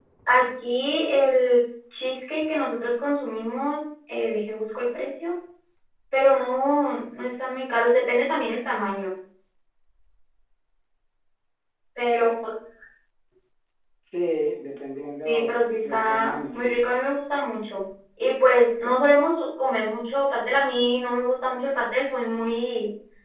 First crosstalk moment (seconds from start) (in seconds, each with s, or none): 15.2 s